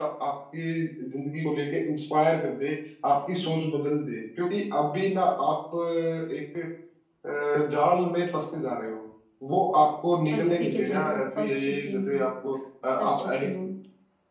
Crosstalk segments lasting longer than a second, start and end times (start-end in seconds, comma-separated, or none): 10.3-12.3